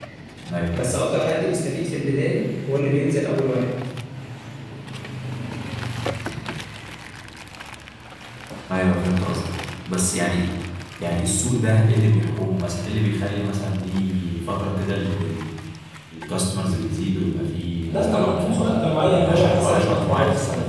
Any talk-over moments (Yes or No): Yes